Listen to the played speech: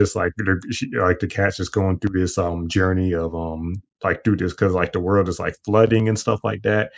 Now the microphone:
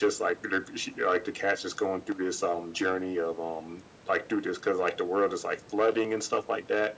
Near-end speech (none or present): none